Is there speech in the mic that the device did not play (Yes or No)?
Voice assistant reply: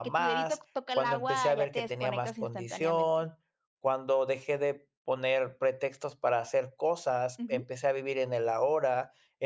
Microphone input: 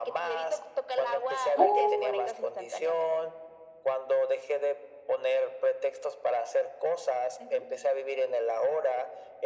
Yes